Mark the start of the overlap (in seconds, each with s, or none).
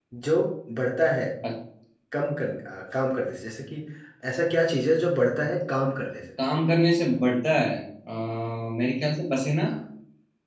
none